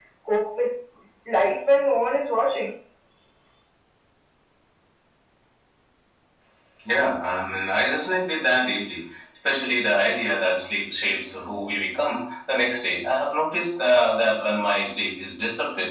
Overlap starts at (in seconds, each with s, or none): none